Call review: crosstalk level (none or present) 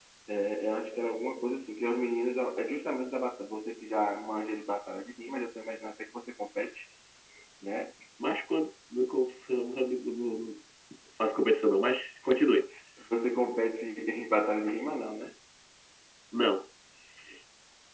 none